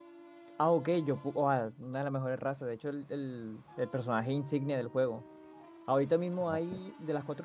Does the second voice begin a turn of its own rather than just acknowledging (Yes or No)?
No